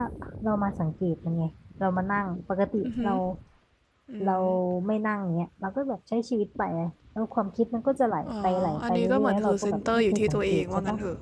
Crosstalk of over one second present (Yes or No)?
Yes